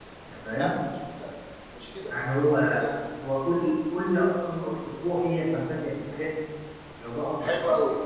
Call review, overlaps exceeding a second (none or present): none